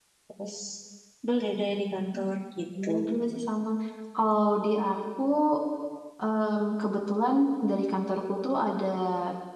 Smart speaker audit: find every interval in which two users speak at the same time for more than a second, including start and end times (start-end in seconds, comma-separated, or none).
none